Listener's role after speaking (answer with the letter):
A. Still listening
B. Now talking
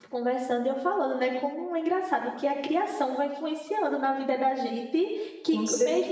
A